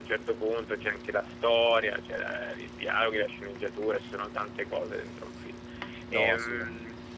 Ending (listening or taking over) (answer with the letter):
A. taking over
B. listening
B